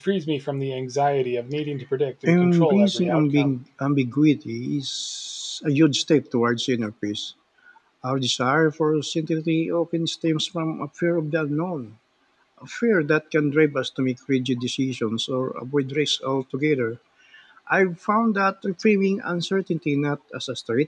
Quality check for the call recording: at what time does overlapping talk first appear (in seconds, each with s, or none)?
2.2 s